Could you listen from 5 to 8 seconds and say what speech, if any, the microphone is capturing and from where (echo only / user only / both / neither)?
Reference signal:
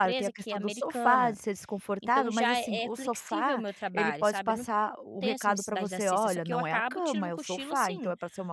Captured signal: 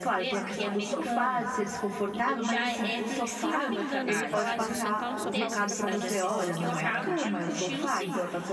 both